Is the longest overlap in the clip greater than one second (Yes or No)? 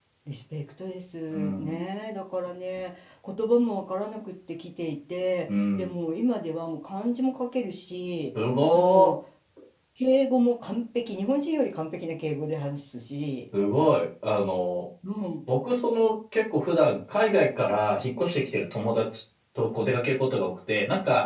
No